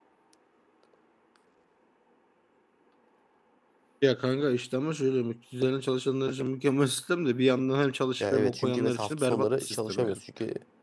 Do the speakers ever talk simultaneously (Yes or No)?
Yes